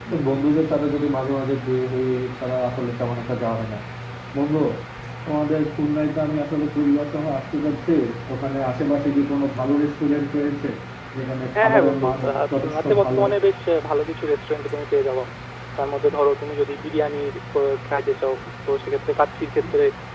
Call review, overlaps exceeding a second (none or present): present